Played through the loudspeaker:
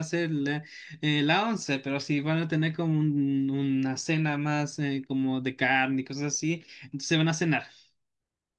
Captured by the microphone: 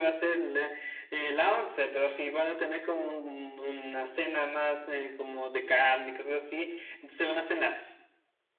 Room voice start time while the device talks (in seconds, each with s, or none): none